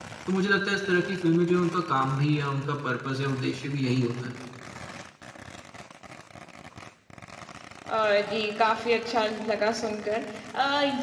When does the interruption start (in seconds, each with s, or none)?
none